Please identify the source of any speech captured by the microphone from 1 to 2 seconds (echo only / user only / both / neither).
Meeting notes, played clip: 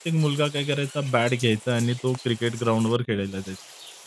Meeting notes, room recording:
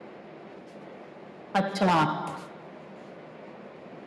user only